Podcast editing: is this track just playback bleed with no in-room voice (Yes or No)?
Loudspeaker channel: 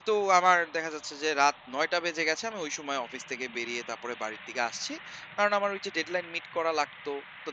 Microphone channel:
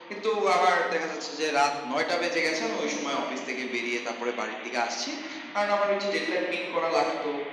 Yes